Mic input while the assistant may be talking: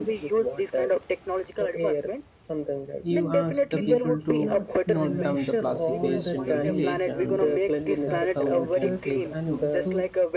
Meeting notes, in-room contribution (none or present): present